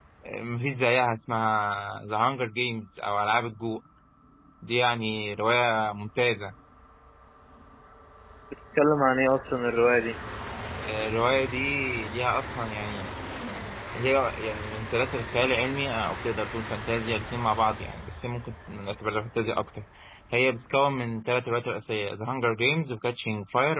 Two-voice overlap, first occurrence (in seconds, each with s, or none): none